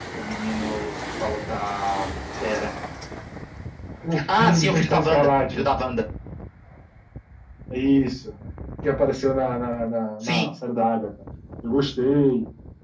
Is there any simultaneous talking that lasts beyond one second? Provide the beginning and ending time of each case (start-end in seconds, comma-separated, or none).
4.3-5.7